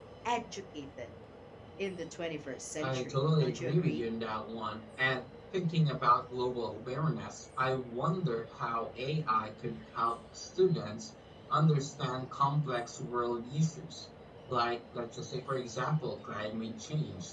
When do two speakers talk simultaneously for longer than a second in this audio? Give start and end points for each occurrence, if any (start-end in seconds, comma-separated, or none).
2.8-4.0